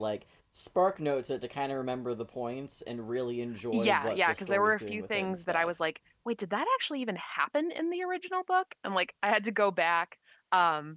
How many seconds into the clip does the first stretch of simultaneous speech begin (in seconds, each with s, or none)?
3.7 s